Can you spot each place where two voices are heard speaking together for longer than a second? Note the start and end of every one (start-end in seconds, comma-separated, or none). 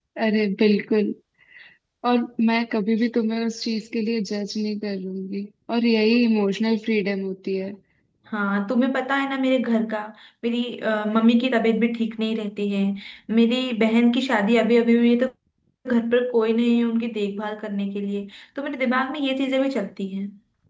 none